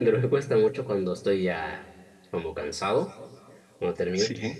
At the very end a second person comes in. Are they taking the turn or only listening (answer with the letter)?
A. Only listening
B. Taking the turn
A